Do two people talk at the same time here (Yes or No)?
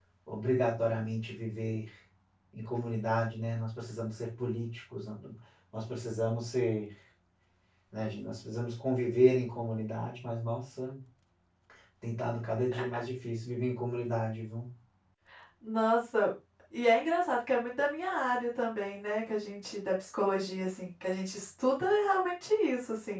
No